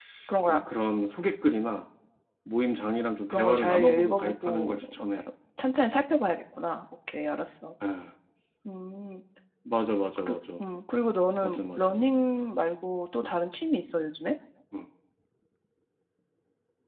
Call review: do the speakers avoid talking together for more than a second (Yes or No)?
No